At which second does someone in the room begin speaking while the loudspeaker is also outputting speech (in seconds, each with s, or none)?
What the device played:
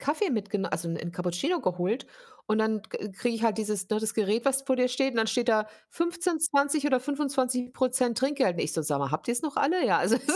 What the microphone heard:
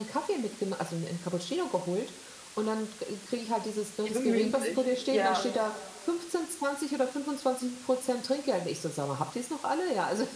4.0 s